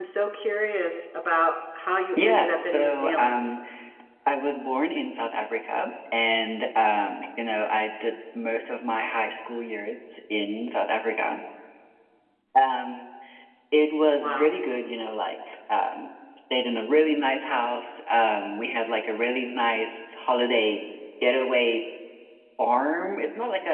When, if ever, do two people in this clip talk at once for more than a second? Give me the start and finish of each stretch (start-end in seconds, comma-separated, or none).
2.2-3.5